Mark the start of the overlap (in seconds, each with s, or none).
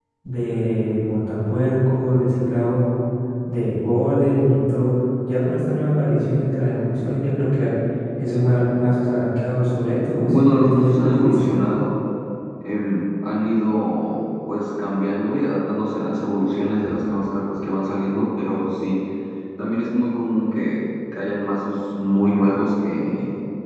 10.3 s